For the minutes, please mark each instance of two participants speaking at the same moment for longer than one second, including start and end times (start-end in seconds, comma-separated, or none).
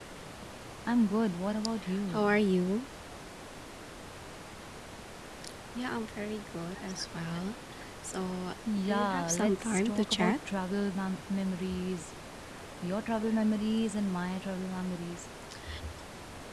8.9-10.4